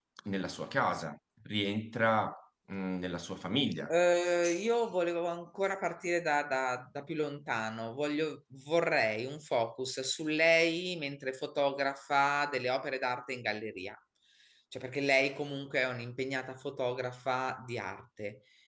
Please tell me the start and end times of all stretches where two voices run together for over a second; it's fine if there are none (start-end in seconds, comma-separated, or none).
none